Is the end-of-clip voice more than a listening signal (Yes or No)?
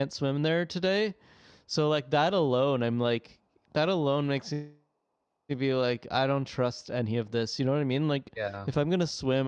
No